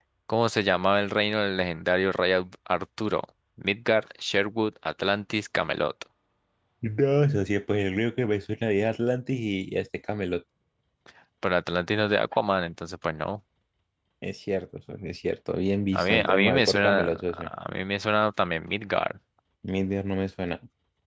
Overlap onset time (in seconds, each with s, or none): 15.9 s